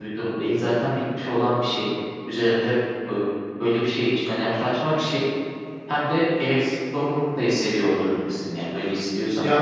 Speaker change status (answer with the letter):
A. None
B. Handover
B